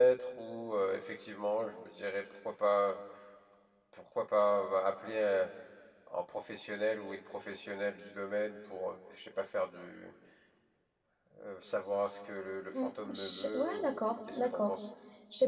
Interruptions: present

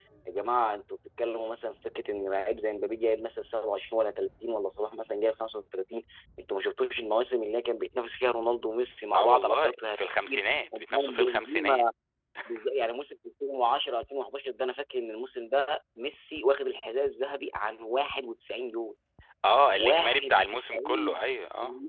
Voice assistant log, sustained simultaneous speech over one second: present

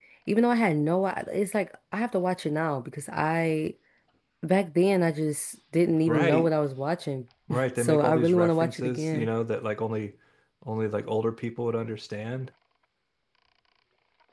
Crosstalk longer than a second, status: present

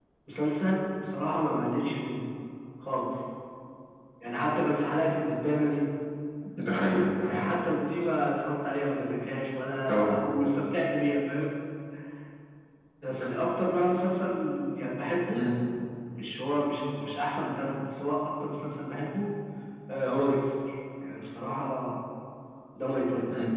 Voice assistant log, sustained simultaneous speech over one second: none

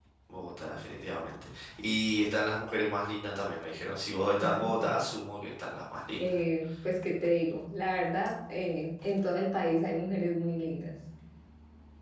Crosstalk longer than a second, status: none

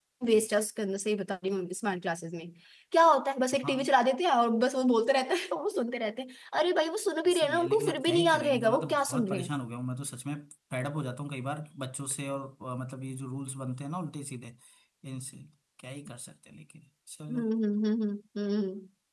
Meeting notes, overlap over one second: present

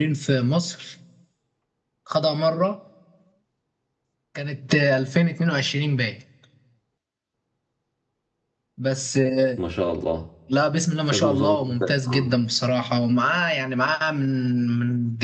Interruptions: present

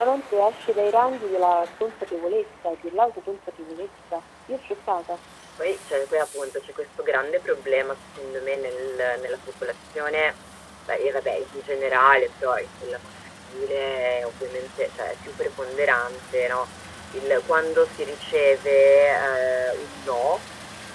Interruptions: none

